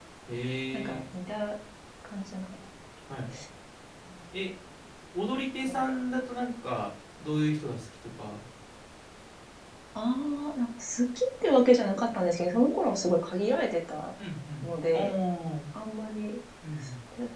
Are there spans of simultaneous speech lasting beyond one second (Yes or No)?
No